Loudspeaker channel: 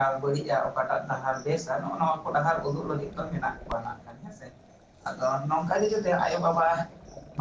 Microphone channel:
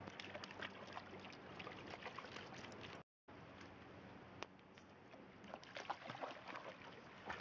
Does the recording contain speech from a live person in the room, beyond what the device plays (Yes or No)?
No